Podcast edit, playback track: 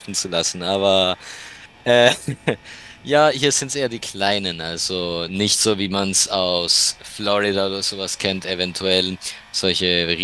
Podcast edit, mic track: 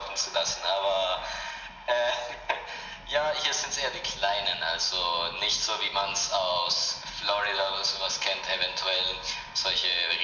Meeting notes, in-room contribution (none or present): none